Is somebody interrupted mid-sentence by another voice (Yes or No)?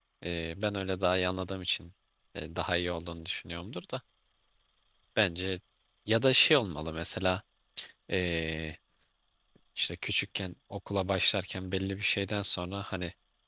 No